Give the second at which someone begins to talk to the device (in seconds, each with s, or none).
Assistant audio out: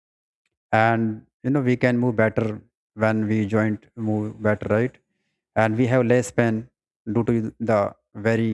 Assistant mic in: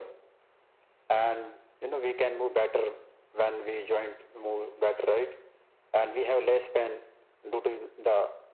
none